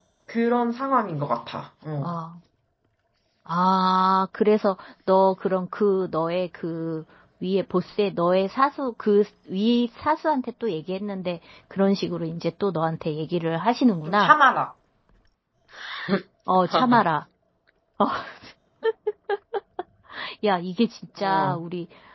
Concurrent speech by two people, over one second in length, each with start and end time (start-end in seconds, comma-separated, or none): none